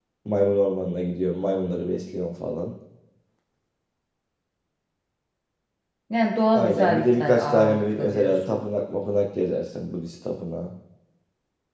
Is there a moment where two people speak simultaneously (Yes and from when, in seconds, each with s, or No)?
Yes, from 6.5 s